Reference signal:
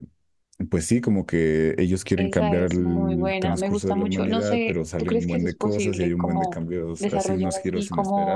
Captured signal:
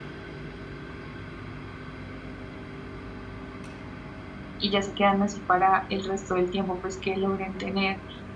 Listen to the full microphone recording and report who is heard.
user only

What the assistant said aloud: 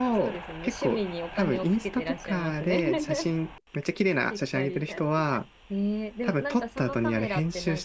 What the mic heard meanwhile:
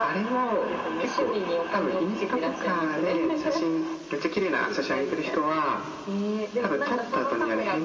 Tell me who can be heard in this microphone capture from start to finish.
echo only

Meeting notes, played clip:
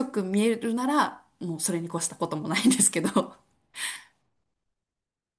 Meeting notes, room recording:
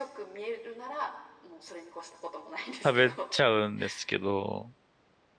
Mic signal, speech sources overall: both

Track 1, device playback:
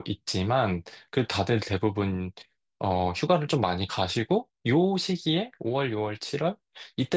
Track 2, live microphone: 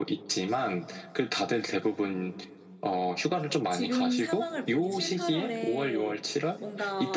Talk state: both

